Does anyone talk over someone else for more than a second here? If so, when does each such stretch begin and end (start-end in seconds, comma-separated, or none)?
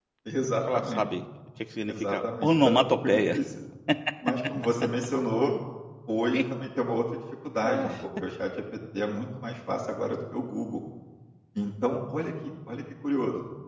1.9-3.4